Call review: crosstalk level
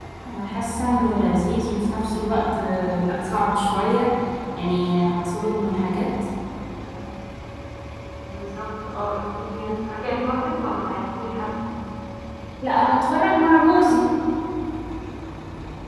none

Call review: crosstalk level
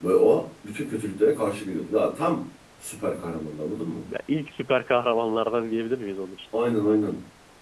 none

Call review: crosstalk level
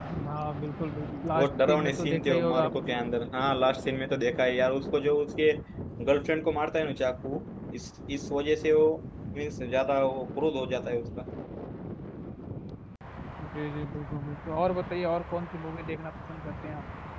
present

